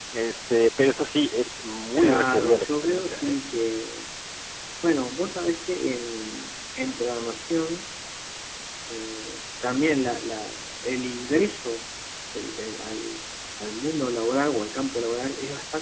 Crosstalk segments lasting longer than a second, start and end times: 2.0-3.4

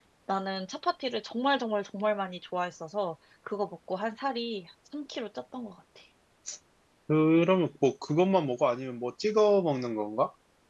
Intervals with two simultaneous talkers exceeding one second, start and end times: none

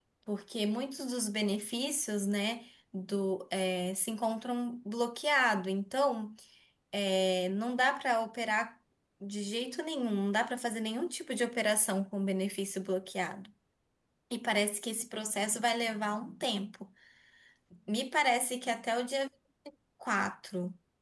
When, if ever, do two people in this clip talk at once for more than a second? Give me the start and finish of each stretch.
none

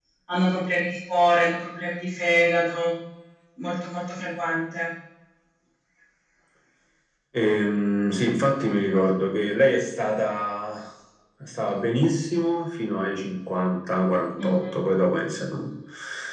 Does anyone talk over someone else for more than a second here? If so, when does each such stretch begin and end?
none

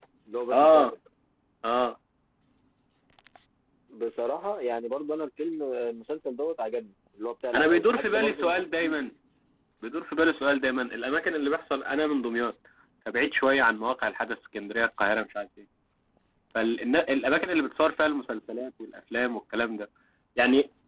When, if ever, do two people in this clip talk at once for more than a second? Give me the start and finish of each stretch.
7.5-9.1

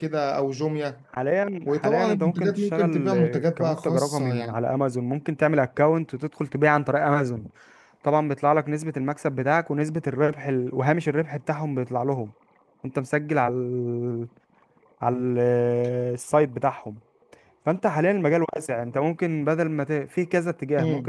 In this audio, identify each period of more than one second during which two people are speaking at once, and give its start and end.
1.6-4.5

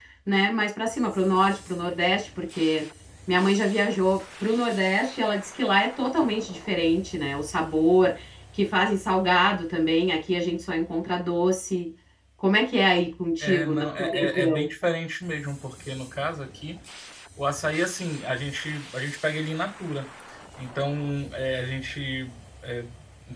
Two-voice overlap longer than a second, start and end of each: 13.4-14.7

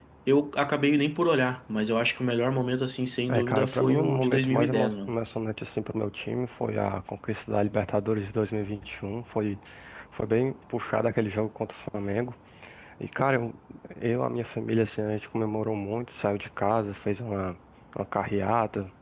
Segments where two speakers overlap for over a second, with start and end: 3.3-5.1

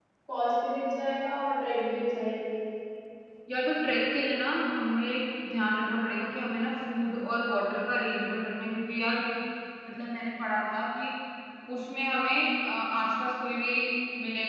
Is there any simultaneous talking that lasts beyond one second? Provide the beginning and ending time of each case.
none

